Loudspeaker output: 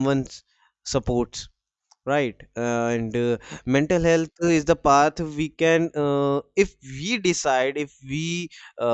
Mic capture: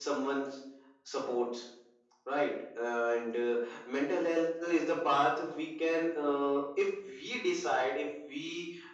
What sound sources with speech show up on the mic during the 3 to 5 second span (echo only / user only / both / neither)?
echo only